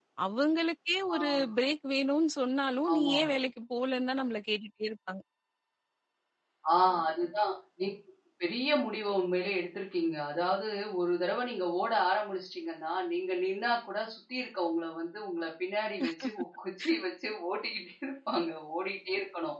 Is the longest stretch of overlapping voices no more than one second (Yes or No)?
Yes